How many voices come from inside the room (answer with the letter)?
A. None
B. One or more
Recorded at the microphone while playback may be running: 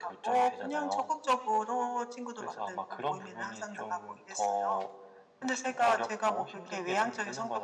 A